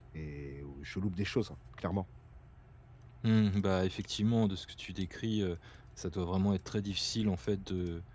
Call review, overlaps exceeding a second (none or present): none